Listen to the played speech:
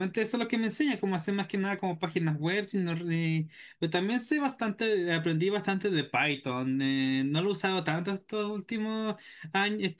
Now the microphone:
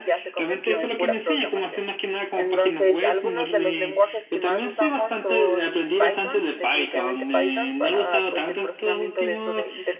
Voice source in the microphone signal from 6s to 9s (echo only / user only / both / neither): both